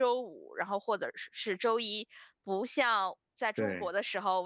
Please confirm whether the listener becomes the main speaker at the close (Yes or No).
No